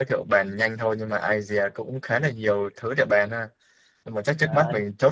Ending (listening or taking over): listening